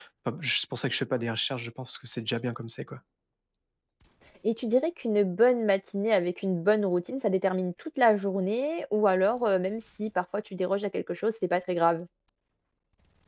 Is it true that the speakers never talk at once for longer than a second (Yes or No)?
Yes